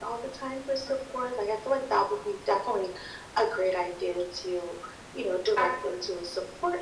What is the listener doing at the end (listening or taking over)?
listening